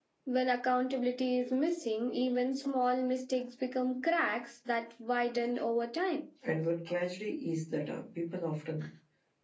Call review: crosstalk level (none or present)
none